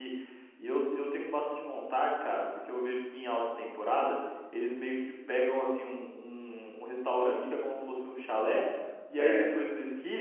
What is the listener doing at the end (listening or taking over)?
listening